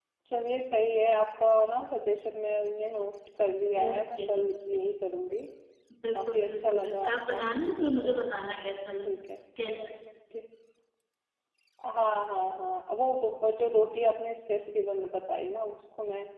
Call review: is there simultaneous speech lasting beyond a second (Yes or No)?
Yes